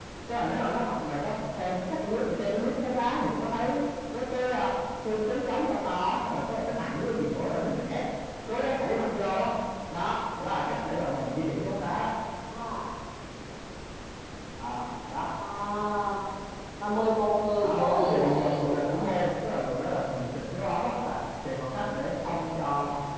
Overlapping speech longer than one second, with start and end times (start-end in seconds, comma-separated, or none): 17.6-19.1